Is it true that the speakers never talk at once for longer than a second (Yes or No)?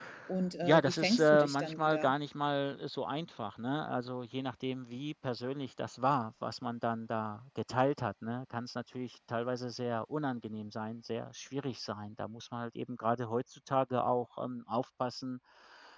No